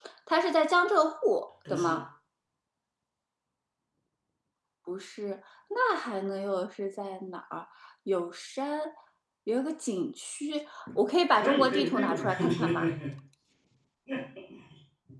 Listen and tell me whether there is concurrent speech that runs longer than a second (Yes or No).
Yes